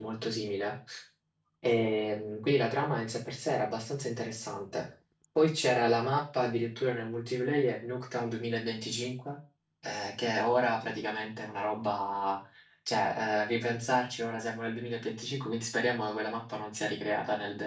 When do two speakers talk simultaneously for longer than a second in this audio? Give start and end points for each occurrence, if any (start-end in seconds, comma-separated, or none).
none